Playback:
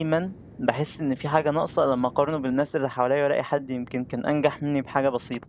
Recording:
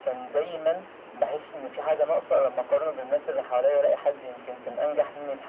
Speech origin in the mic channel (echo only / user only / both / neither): echo only